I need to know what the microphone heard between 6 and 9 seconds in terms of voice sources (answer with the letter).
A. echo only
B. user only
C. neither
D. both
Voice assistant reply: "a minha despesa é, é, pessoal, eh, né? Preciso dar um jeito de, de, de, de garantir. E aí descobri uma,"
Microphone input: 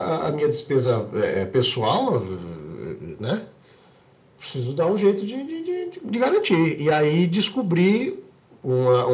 A